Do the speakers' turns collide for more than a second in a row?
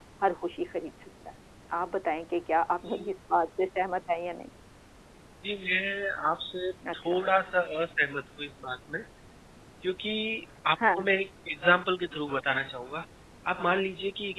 No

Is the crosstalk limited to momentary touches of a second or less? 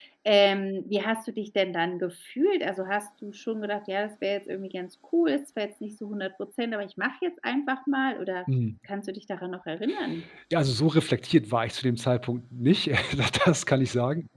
Yes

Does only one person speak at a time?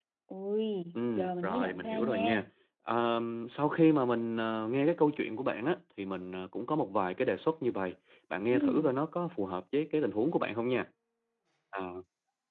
No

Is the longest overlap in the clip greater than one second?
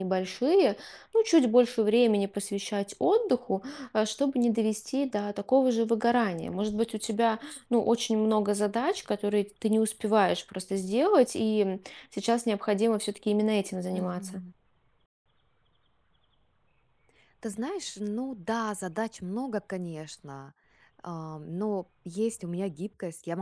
No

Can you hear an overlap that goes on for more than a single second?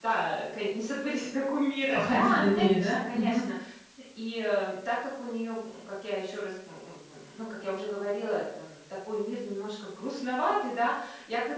Yes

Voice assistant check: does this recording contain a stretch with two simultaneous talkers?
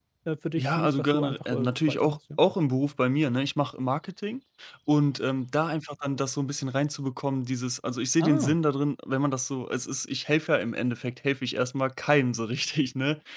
Yes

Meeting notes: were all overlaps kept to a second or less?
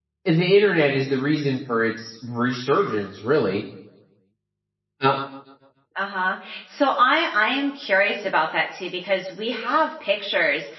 Yes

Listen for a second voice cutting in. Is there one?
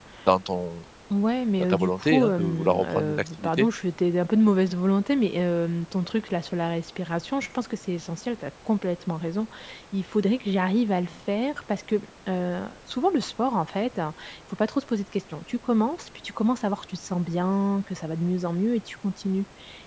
Yes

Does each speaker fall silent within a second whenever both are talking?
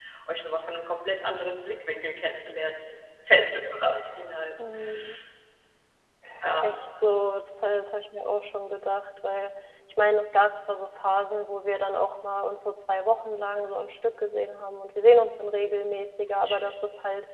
Yes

